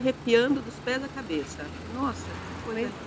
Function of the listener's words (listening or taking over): taking over